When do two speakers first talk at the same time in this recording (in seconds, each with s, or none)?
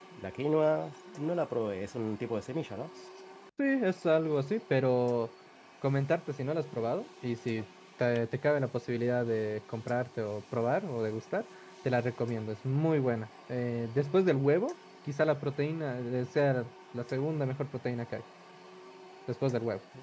none